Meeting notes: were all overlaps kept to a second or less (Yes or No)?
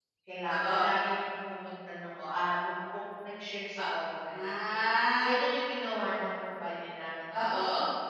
Yes